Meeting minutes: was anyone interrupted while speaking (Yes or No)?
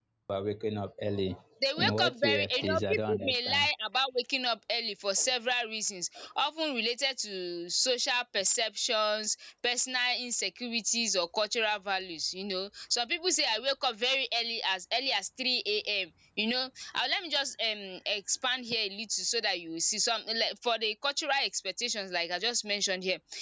Yes